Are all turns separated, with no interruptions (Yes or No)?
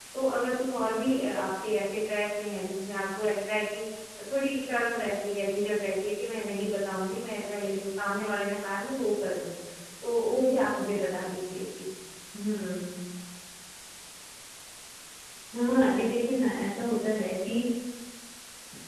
Yes